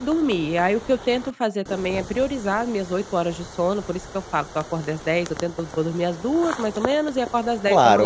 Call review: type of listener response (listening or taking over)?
taking over